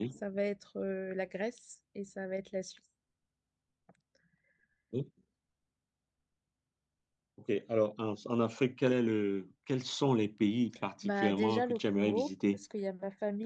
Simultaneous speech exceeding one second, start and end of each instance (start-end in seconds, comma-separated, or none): 11.0-12.6